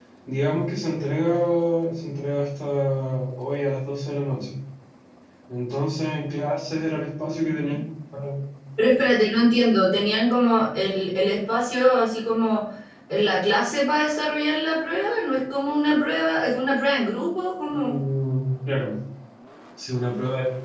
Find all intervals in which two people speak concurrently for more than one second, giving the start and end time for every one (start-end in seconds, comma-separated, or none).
none